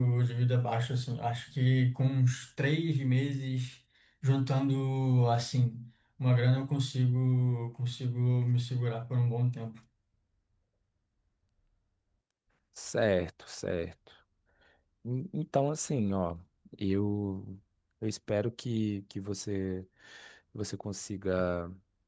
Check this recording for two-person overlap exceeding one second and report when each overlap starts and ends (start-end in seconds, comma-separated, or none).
none